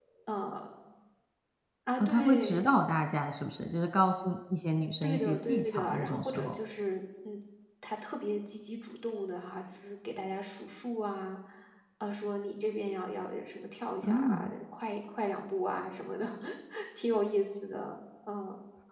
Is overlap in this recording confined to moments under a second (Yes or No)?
No